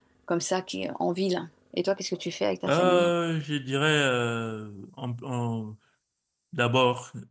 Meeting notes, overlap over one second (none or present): none